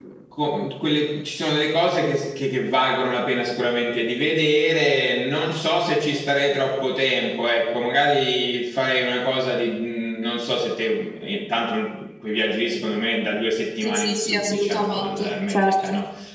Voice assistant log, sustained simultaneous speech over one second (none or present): present